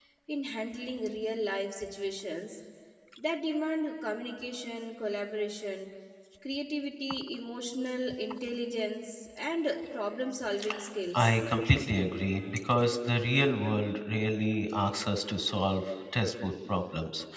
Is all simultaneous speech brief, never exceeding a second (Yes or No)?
Yes